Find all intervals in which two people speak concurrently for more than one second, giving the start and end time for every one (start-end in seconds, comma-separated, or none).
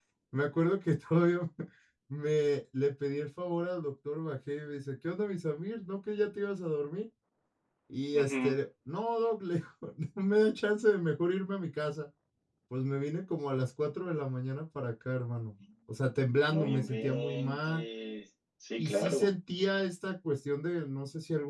16.5-17.8